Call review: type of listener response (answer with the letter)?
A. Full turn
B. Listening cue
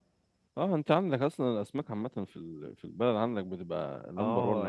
A